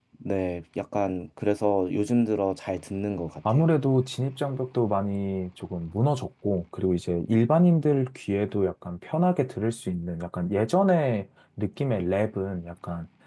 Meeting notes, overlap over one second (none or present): none